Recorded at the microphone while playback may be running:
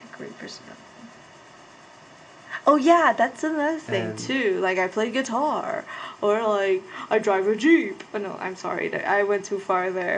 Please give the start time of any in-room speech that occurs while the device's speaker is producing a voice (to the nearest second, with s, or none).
4 s